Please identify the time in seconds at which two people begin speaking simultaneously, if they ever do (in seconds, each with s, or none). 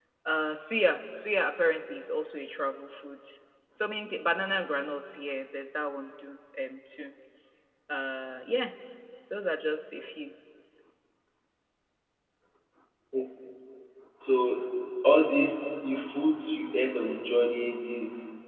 none